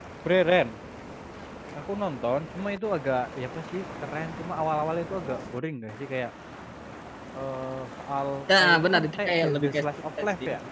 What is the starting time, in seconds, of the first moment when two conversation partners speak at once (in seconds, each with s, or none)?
8.5 s